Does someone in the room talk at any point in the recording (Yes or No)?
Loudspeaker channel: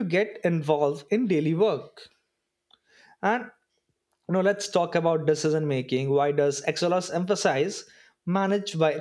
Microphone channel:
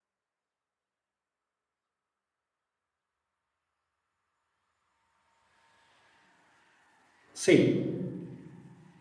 Yes